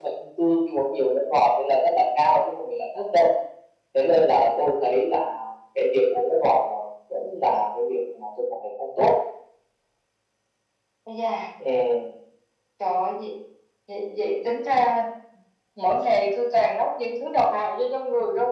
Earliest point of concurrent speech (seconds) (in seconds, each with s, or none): none